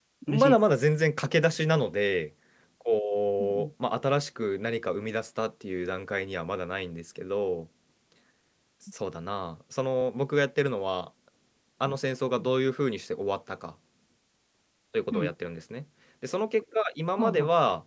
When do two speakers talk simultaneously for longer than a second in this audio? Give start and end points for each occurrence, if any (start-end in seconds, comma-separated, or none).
none